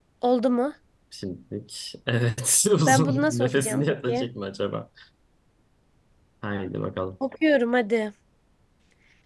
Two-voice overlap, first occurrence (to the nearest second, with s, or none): 3 s